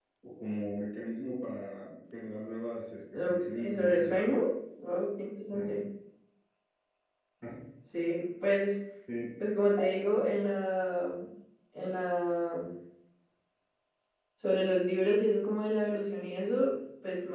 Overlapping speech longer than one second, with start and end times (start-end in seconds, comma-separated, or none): 3.1-4.3